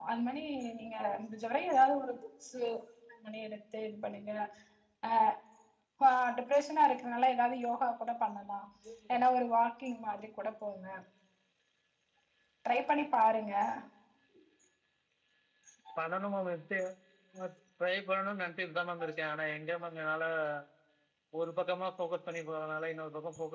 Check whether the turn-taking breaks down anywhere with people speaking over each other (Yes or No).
No